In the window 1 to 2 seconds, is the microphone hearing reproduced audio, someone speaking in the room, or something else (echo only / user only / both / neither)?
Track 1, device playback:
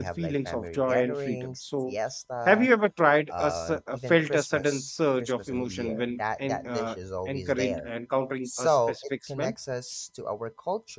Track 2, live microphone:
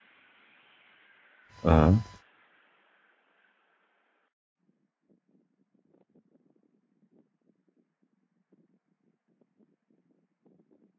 user only